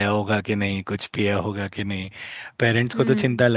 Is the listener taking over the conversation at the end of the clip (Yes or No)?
No